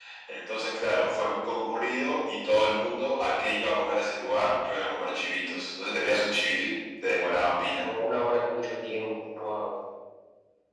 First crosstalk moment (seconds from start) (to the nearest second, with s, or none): none